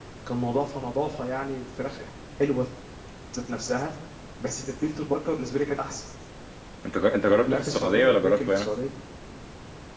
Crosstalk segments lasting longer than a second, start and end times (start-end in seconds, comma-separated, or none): 7.2-8.7